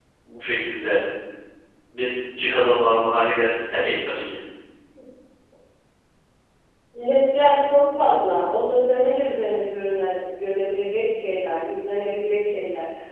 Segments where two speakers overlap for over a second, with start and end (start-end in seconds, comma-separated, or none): none